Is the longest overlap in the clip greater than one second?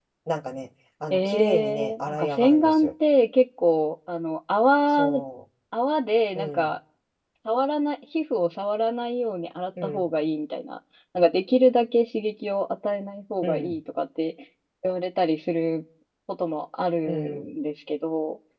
Yes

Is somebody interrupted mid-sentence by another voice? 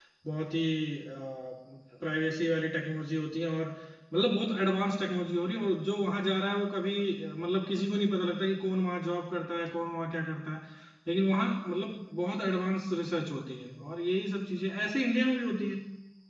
No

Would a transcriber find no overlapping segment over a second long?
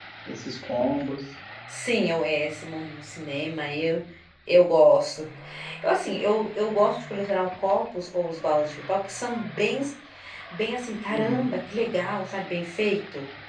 Yes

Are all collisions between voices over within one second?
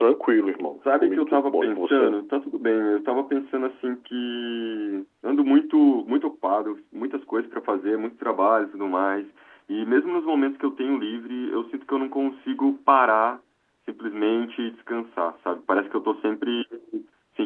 No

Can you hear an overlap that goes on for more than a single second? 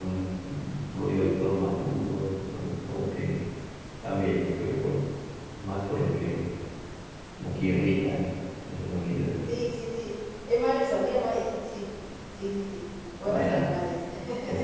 No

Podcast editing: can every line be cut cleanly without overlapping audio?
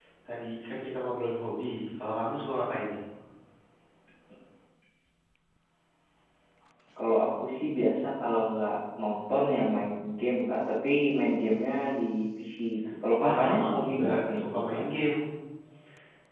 No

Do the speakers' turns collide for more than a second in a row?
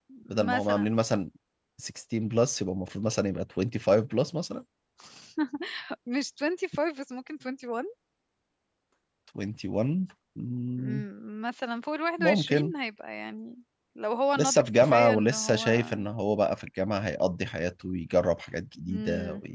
Yes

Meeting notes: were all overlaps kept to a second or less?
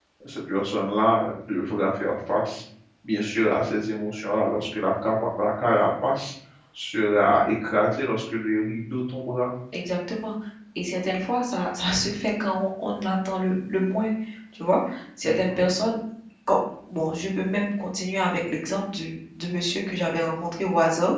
Yes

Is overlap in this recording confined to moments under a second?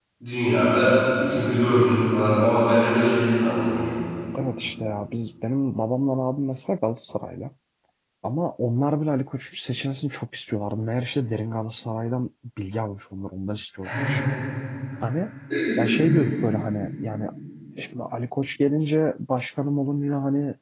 Yes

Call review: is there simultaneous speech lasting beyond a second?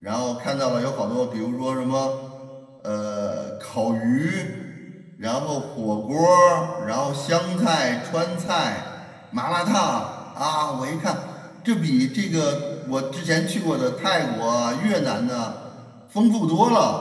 No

